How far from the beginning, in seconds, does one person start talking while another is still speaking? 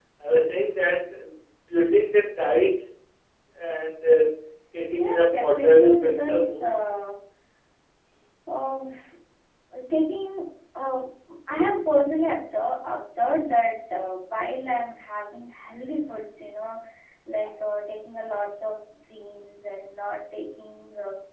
5.0 s

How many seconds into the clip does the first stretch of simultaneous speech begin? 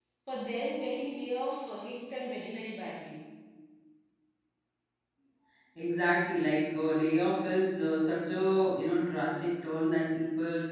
none

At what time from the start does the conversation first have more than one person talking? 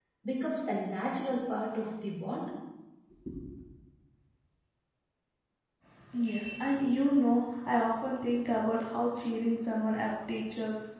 none

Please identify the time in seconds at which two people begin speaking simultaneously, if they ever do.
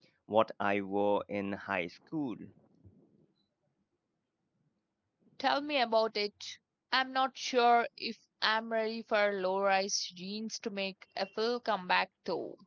none

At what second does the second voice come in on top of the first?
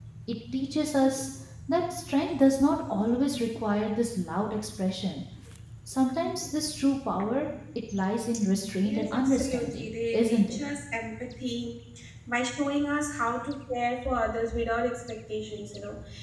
8.8 s

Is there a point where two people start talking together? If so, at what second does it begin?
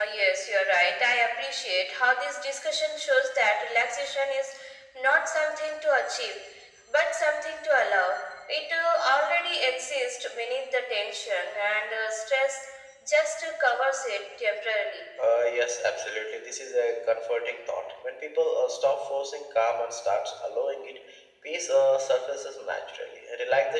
none

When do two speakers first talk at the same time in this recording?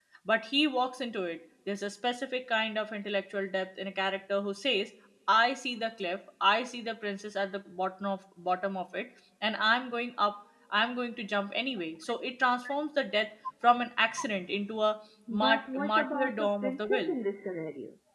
15.3 s

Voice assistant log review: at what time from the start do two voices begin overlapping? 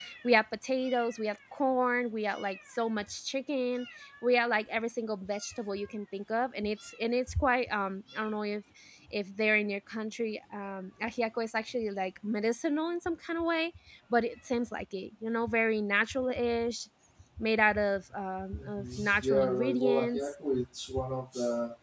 18.6 s

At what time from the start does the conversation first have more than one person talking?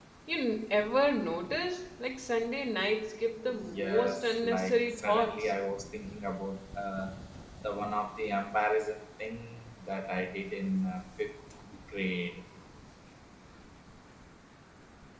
3.5 s

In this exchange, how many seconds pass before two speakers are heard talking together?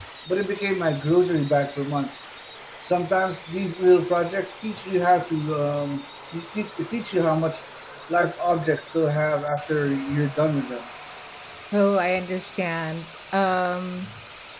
none

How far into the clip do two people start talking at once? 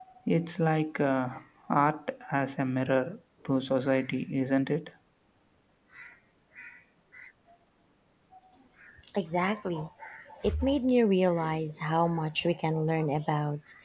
none

